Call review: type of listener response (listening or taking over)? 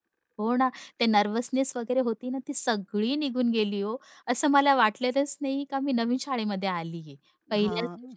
listening